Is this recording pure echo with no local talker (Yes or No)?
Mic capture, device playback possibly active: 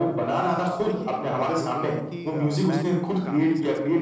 No